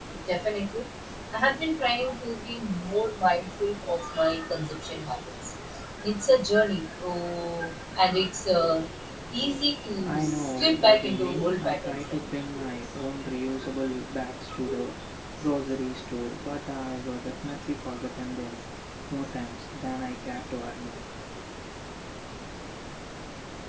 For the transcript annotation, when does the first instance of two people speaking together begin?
10.0 s

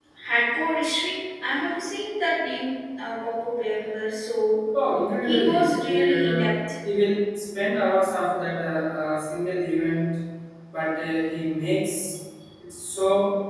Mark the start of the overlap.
5.2 s

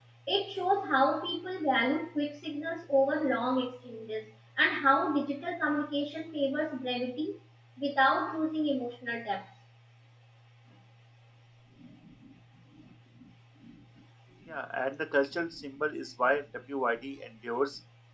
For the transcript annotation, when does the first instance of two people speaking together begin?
none

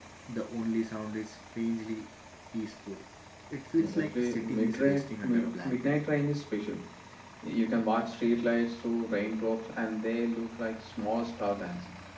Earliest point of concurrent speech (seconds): 3.8 s

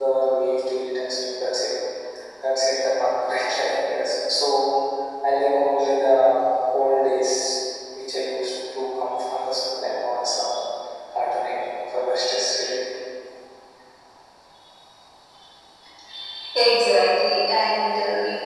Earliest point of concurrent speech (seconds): none

